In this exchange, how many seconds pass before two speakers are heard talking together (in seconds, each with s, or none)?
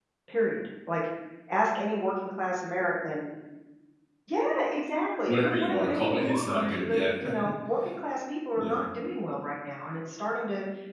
5.3 s